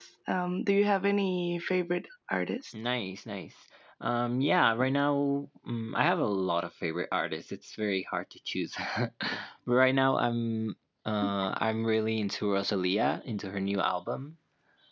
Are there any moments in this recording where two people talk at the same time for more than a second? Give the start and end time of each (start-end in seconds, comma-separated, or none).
none